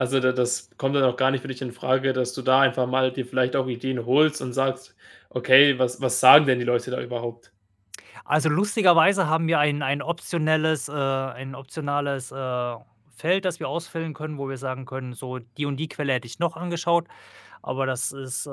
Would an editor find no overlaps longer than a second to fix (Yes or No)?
Yes